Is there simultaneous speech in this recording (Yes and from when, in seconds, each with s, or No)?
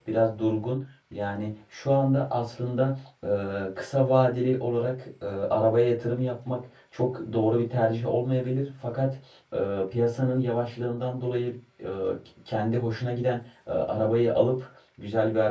No